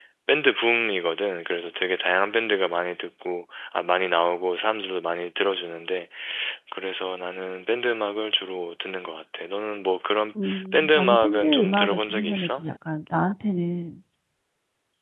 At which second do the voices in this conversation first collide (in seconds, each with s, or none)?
10.7 s